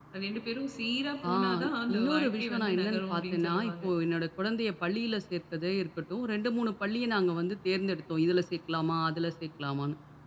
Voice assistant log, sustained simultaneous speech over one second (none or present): present